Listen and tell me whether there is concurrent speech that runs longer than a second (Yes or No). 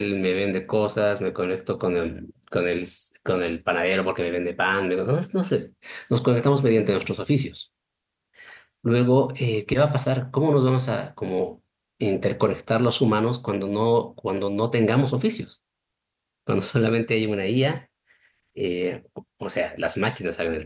No